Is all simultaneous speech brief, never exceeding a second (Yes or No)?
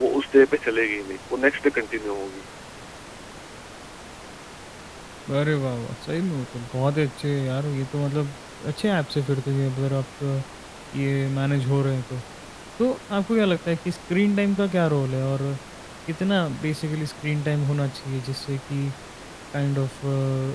Yes